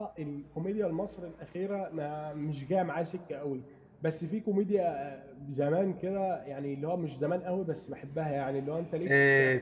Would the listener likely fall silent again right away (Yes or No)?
No